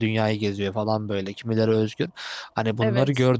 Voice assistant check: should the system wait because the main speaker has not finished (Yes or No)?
Yes